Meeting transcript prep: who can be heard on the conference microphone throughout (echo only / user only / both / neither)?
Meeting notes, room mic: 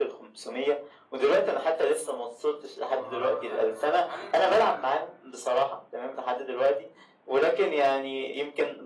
both